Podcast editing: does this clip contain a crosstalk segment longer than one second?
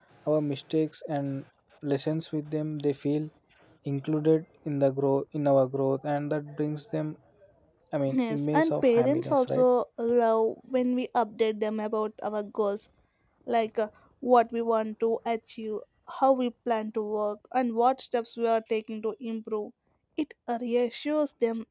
Yes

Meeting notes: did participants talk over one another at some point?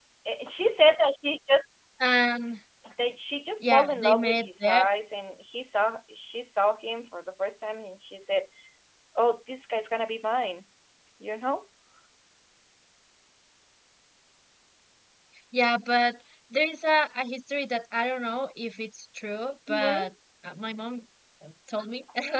Yes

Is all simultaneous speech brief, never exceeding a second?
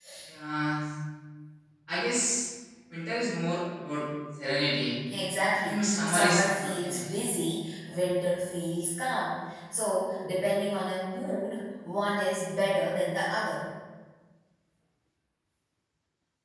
No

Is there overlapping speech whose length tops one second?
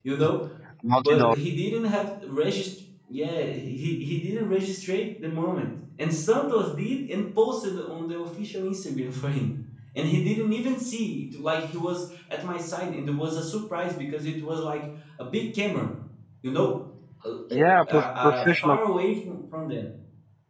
Yes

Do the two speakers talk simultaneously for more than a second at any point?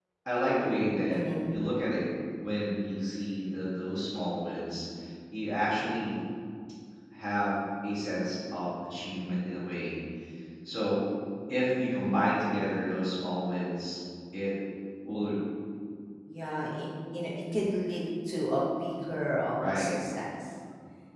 No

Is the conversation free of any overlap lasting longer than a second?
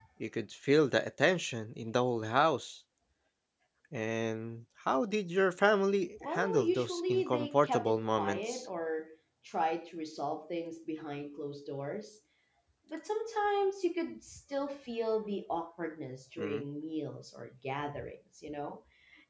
No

